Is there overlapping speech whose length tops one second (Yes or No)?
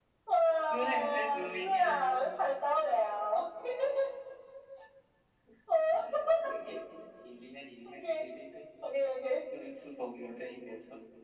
Yes